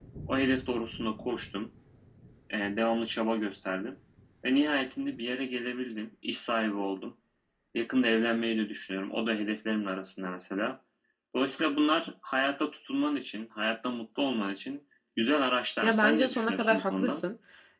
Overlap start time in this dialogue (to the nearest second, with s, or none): 16 s